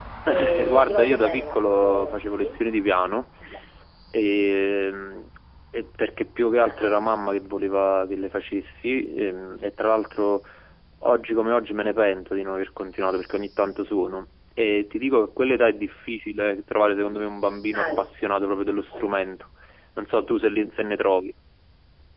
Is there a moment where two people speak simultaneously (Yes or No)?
Yes